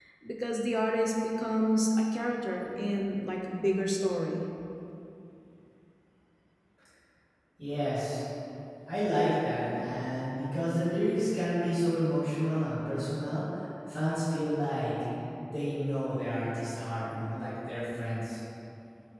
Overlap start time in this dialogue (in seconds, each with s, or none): none